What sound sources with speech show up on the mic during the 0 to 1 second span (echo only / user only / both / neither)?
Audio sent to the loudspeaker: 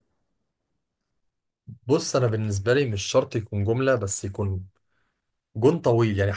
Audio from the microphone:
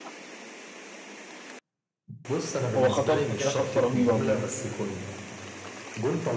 neither